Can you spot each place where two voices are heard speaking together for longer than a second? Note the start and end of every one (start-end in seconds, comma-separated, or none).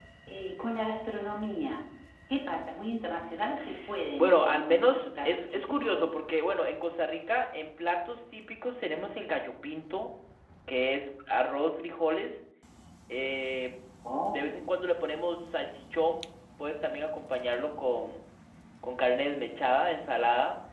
4.2-6.2